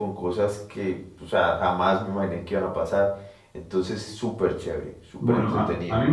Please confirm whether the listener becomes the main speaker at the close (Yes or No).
Yes